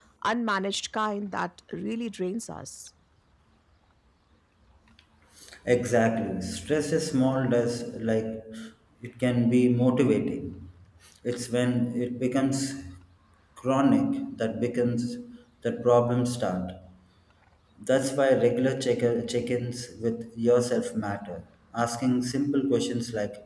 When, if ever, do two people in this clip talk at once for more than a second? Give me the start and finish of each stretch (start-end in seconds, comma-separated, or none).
none